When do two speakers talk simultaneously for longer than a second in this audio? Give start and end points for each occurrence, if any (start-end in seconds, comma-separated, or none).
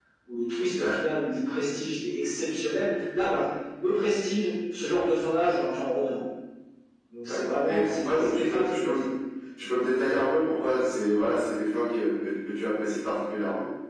7.2-9.0